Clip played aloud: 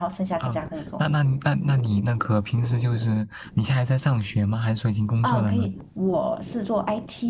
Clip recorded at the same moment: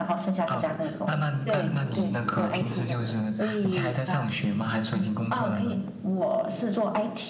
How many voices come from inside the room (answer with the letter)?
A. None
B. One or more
B